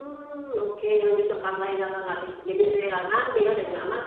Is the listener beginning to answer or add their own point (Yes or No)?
No